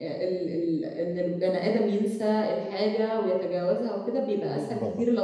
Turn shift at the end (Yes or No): No